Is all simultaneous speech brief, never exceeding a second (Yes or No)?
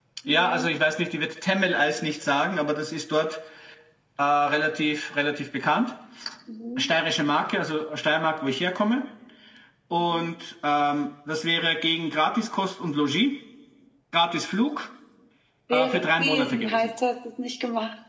No